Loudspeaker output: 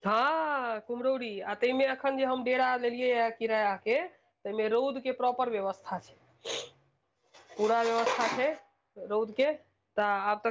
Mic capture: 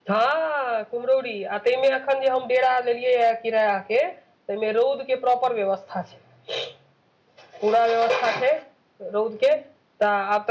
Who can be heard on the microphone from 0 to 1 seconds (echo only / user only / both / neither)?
echo only